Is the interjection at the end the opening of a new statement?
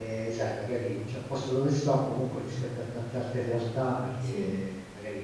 No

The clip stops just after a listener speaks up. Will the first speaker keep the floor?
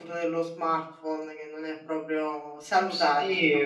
No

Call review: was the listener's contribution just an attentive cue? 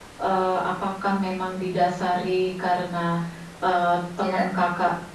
Yes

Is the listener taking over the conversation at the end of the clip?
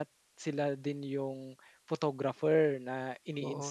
Yes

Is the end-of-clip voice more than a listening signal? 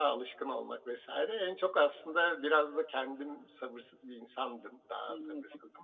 No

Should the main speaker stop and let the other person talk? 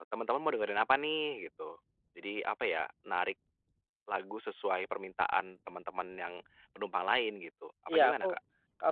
Yes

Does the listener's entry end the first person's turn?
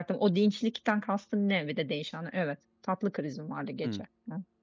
Yes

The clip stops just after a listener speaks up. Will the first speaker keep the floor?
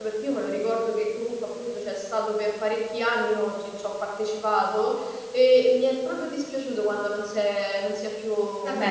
No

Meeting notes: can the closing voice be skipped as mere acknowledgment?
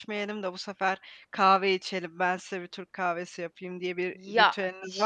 No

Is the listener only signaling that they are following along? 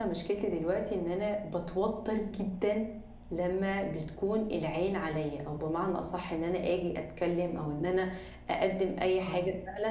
Yes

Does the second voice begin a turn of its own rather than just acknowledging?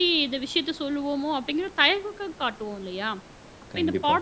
No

